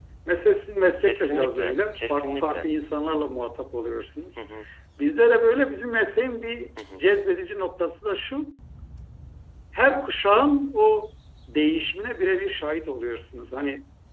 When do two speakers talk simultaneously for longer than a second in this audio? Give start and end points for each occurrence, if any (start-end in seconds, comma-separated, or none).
1.0-2.6